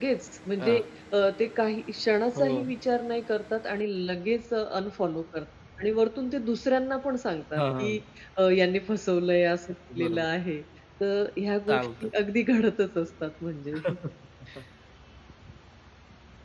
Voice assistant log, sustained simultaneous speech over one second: none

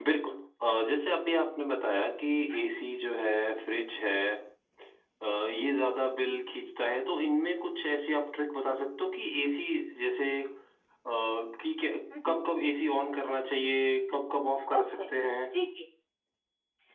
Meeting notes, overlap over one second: none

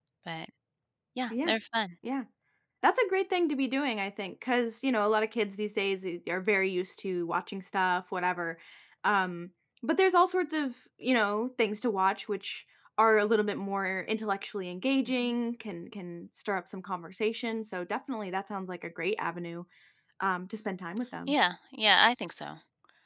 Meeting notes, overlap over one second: none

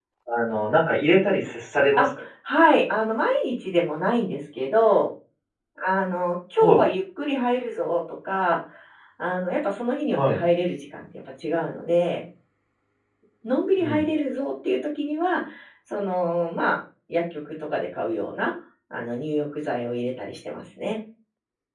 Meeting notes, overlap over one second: none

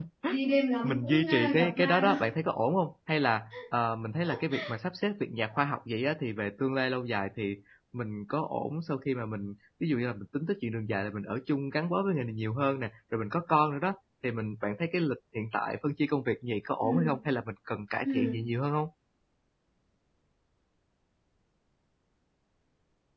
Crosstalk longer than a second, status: present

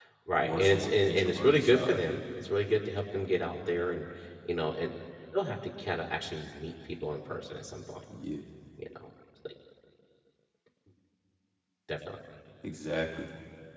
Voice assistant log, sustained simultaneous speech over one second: present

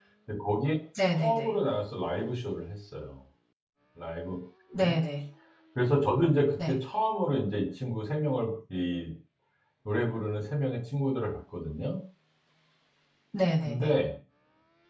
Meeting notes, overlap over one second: none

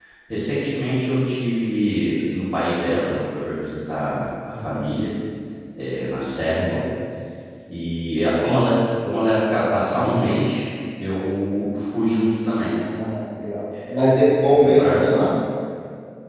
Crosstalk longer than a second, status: present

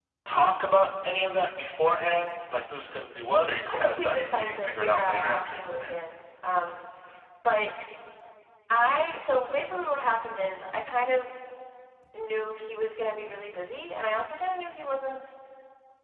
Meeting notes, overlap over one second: present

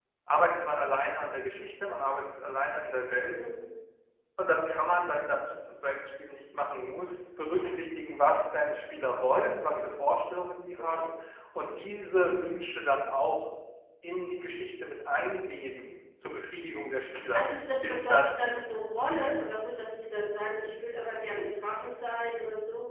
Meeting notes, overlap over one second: present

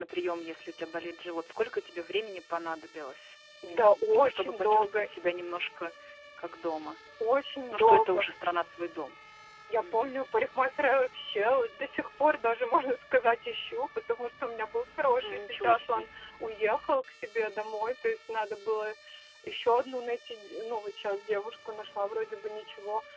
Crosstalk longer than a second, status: present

